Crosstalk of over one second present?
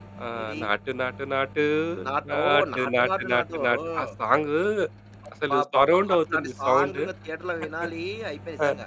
Yes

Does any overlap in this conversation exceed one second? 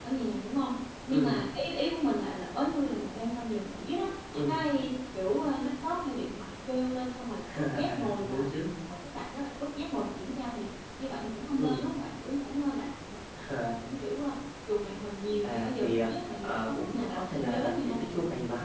Yes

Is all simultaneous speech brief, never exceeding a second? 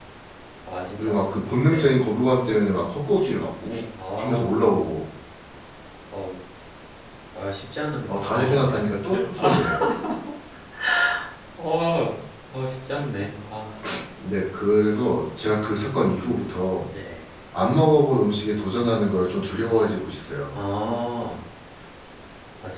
No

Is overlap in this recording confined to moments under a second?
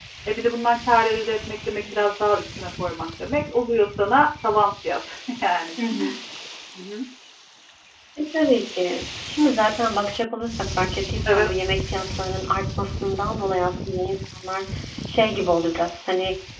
Yes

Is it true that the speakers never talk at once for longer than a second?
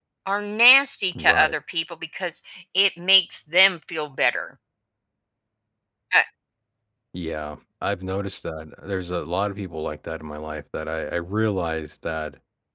Yes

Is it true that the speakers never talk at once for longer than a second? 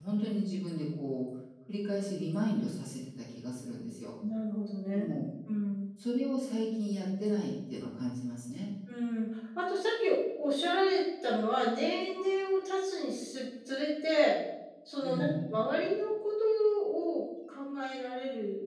Yes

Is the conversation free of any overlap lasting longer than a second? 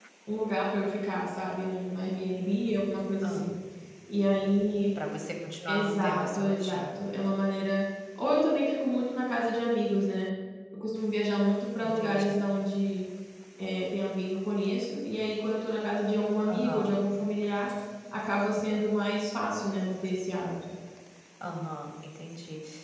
No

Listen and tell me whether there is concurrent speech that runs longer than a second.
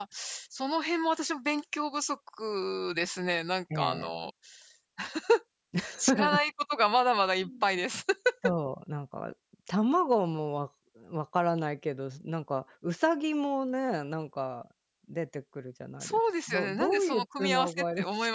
Yes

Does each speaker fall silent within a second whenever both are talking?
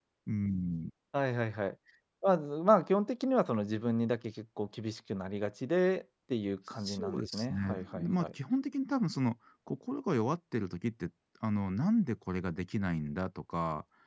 No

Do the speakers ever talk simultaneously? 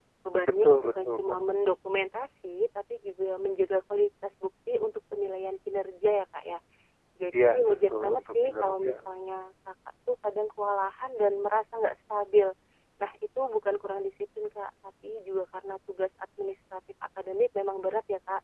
Yes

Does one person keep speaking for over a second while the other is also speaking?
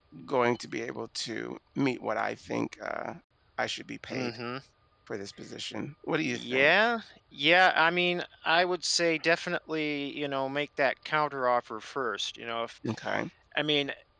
No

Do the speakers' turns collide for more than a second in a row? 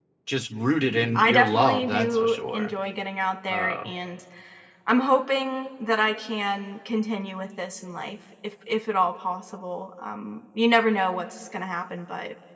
Yes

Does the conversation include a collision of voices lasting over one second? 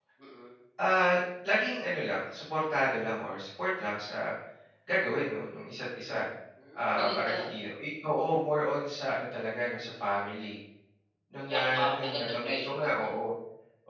Yes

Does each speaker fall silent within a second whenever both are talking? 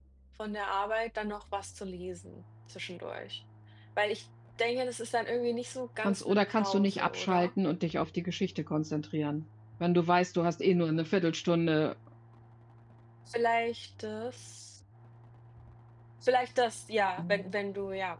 No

